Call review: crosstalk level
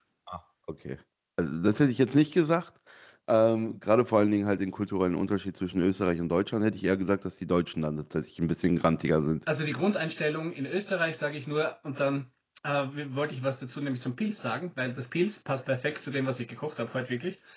none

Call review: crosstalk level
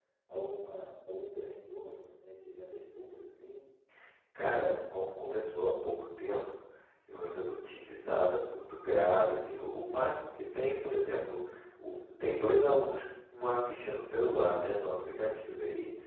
none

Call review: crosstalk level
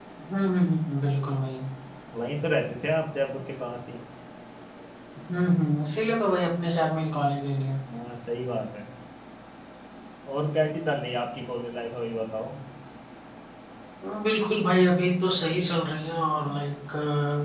none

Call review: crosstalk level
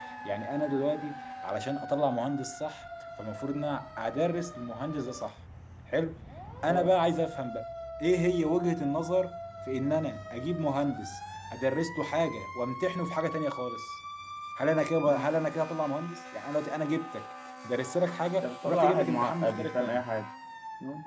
present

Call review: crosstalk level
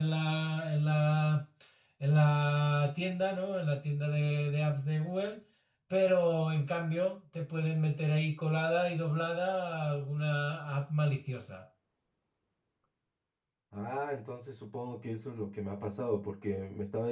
none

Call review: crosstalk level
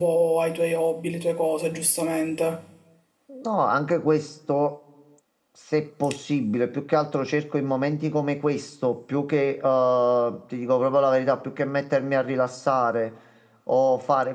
none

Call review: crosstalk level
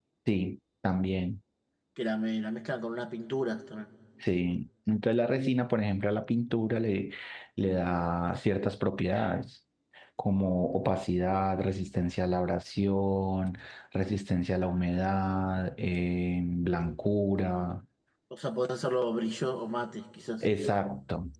none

